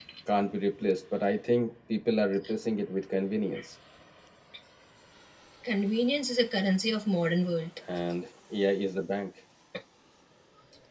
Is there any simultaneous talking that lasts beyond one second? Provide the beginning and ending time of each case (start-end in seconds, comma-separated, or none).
none